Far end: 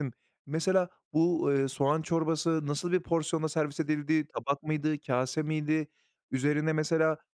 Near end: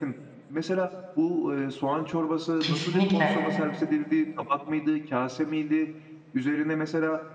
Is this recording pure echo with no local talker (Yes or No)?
No